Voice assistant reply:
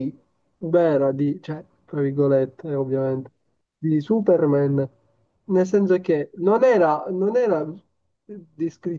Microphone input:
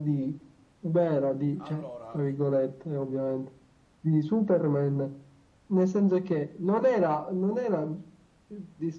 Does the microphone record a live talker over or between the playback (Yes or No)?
Yes